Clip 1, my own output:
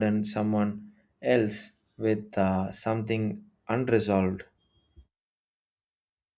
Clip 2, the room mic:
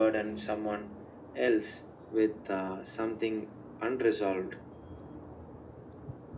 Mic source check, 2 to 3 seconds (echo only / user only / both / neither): echo only